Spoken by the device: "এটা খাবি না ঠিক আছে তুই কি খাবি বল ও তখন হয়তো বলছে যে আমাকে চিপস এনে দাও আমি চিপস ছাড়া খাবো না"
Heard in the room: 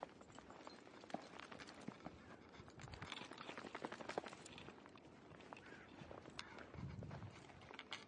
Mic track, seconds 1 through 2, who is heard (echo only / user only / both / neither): neither